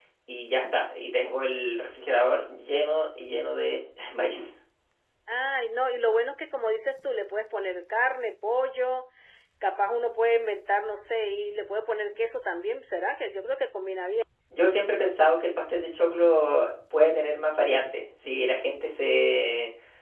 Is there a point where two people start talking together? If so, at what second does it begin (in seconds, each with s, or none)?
none